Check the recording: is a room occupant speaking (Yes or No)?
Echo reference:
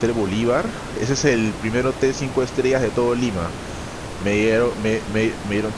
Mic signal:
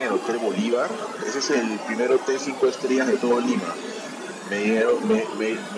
No